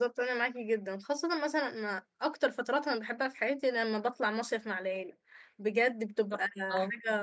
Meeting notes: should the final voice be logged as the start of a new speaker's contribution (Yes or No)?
No